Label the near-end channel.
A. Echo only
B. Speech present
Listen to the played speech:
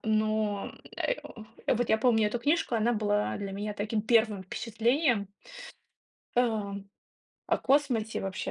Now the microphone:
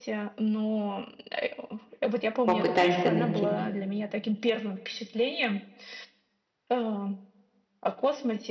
B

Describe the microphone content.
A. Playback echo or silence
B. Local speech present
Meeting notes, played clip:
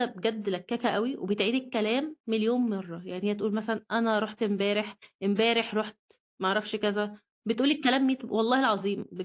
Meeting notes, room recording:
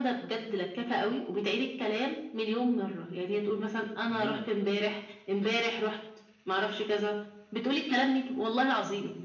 B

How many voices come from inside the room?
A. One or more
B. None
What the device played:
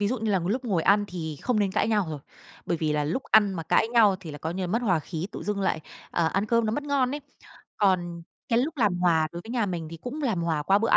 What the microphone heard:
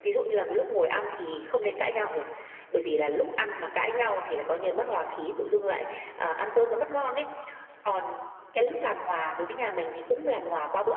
B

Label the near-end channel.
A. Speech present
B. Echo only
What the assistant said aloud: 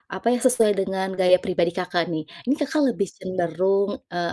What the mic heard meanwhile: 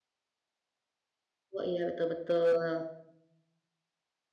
A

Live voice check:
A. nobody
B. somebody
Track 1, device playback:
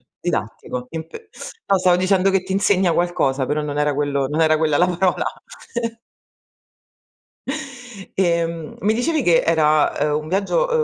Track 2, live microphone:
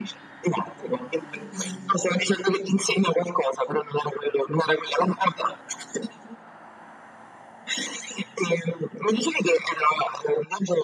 B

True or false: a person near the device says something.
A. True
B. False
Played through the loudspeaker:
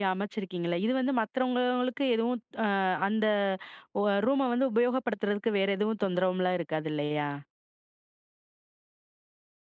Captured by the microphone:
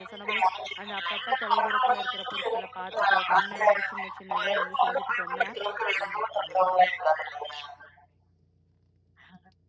A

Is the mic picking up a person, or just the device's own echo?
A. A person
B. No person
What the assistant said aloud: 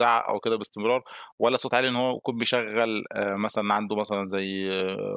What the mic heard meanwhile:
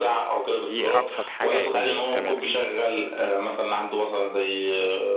A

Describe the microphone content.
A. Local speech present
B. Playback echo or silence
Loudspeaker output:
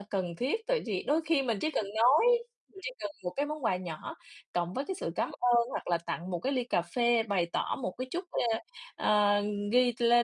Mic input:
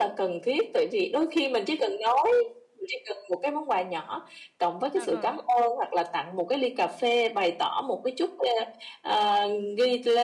A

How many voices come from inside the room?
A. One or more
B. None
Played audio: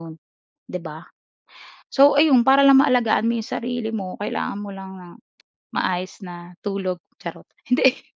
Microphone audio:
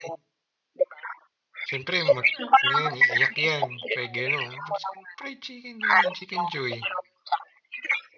A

